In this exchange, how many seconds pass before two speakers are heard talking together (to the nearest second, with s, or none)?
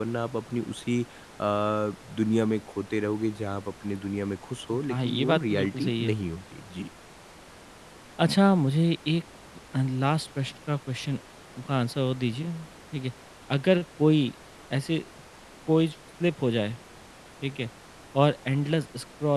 5 s